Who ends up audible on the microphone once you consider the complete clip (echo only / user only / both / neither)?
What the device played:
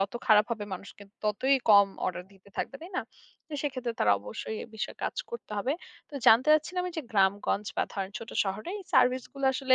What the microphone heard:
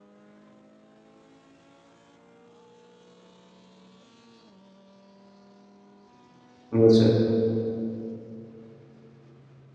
user only